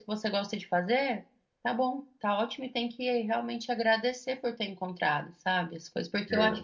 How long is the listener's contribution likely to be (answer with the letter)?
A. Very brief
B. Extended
A